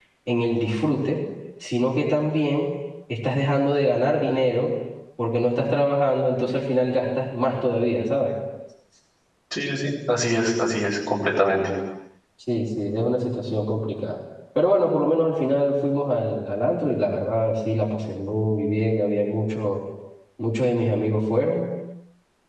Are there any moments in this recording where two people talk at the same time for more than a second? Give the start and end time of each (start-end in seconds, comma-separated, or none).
none